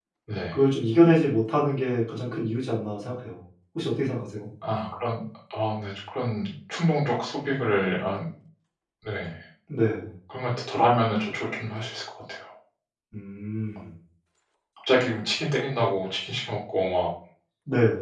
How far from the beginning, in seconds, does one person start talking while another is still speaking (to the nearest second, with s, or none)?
none